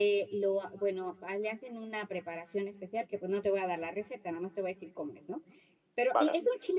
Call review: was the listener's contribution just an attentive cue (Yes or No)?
Yes